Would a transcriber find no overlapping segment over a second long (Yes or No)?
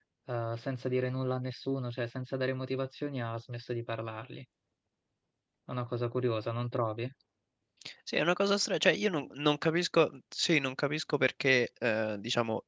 Yes